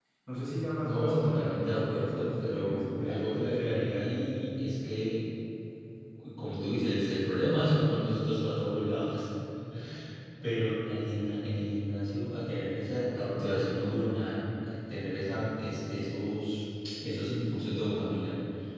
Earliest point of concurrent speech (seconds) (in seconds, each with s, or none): 0.8 s